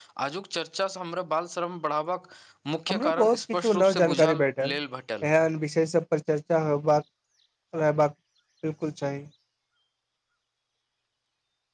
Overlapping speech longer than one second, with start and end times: 2.9-4.3

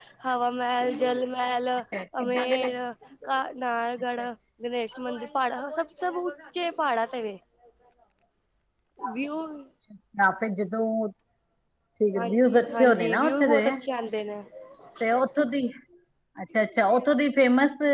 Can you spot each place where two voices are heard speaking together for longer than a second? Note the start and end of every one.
12.2-13.6

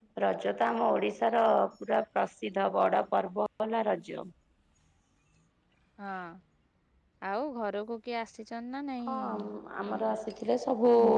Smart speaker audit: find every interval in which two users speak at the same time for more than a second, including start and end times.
none

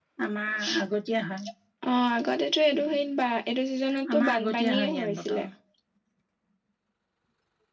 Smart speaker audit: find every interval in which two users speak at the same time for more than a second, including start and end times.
4.2-5.4

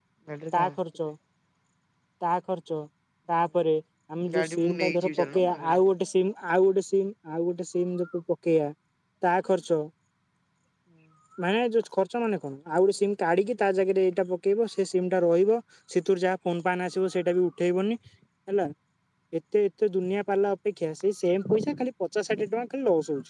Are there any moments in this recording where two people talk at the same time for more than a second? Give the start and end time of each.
4.2-5.9

